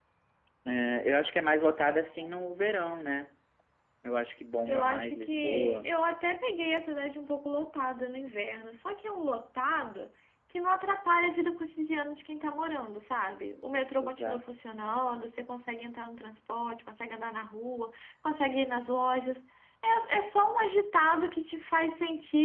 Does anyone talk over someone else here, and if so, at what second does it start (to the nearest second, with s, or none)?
5 s